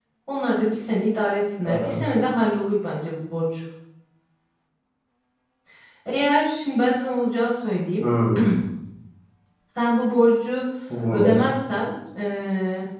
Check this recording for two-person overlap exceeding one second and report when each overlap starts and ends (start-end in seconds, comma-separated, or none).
none